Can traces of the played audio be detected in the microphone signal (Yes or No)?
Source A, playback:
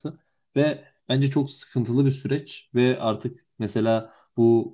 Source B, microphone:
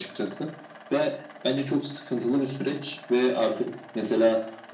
Yes